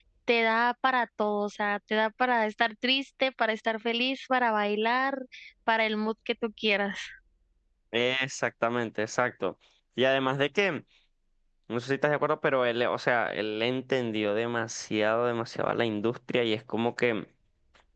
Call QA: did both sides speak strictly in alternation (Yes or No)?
Yes